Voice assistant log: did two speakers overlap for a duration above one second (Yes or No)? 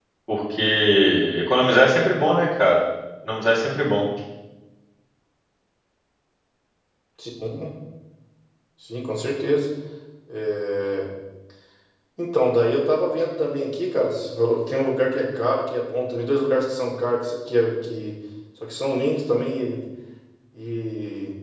No